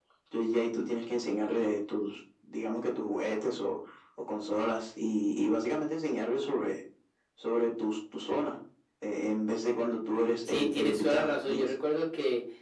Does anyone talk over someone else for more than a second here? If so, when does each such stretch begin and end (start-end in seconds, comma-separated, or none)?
10.4-11.7